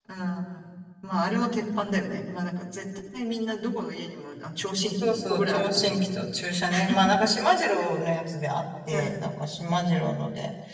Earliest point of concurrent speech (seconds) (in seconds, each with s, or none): 5.0 s